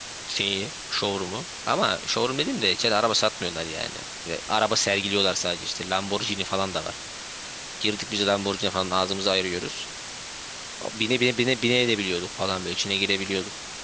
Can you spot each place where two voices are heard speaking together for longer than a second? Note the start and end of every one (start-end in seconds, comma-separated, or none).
none